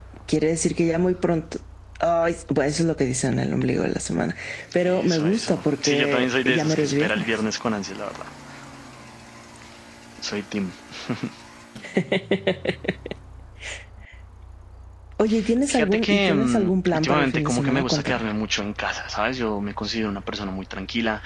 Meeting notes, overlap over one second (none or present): present